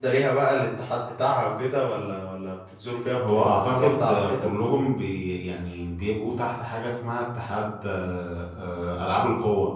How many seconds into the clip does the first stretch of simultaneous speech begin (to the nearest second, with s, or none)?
3 s